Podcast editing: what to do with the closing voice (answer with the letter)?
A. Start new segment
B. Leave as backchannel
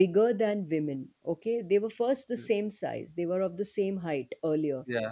B